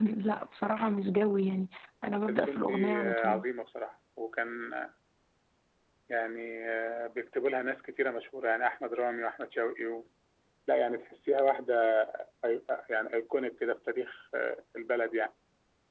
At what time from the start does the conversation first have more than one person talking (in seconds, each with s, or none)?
2.0 s